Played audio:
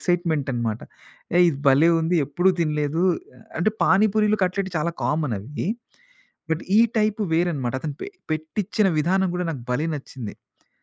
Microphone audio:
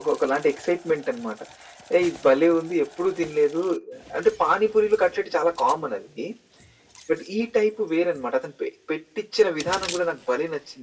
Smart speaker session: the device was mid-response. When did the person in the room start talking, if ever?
none

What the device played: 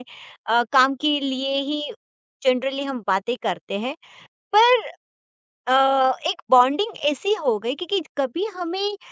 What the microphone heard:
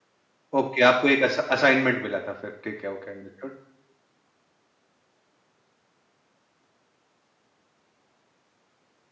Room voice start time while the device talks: 0.6 s

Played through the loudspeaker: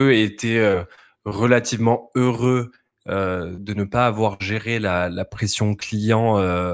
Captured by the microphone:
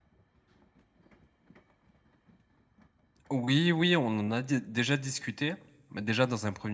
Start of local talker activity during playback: 3.3 s

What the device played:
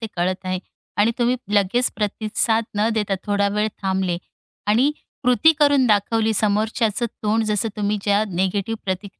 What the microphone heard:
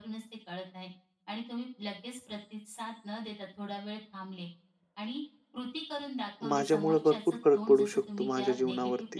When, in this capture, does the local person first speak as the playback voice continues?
6.5 s

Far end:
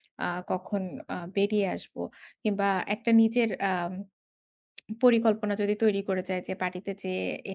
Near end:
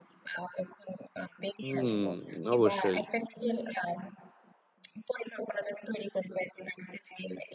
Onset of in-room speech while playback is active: 1.6 s

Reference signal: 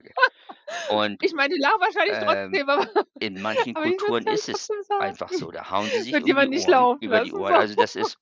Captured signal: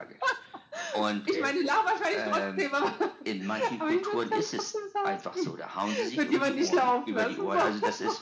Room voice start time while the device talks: 1.1 s

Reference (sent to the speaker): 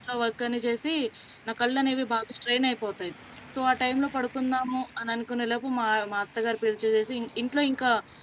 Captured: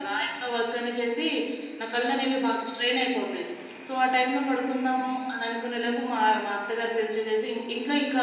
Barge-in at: none

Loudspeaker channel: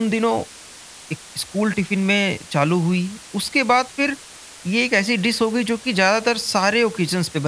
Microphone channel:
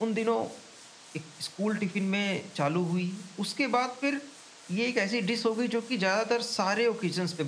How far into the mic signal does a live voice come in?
none

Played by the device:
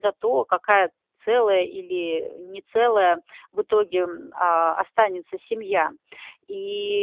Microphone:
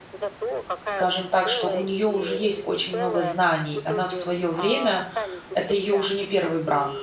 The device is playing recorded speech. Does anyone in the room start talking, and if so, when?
0.8 s

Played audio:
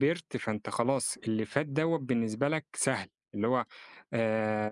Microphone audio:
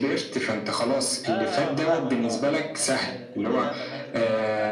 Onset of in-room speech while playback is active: 1.2 s

